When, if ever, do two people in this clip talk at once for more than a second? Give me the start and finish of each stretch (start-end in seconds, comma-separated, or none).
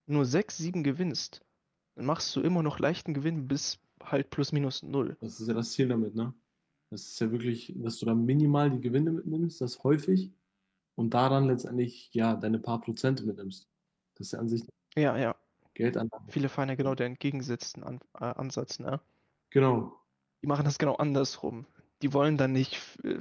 none